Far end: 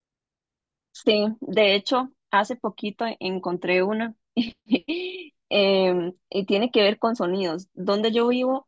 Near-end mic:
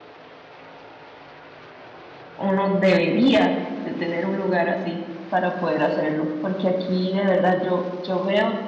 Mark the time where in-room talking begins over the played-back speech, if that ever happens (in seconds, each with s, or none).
2.4 s